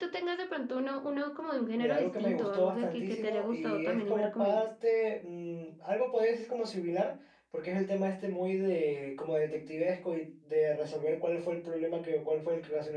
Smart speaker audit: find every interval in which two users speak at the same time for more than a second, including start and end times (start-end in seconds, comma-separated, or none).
1.8-4.6